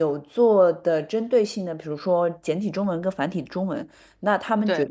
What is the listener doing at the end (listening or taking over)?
listening